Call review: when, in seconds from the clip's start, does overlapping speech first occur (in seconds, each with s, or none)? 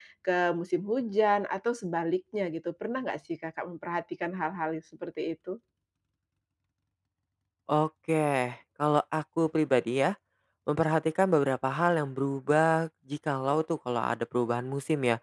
none